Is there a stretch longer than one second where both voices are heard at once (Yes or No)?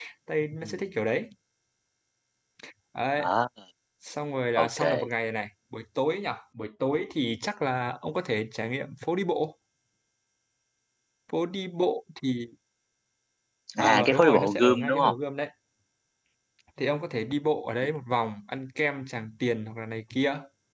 Yes